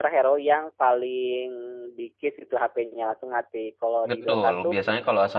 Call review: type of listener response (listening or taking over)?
taking over